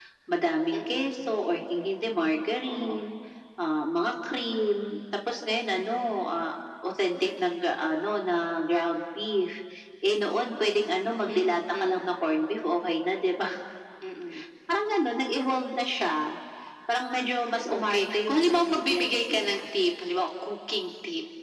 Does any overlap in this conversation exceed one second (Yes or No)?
Yes